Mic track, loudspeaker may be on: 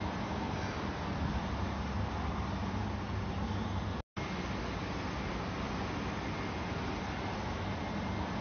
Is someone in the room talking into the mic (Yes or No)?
No